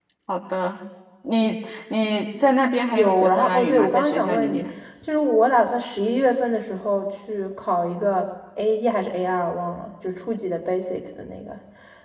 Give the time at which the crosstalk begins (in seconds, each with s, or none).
2.9 s